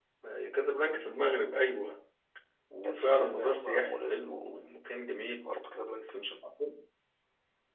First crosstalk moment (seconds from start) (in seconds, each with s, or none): 2.8 s